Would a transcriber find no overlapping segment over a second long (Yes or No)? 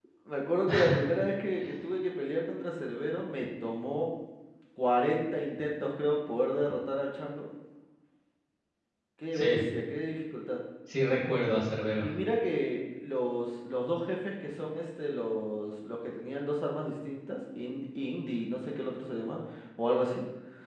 Yes